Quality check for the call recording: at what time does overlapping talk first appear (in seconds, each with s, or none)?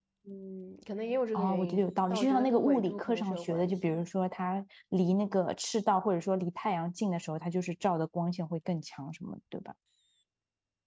1.3 s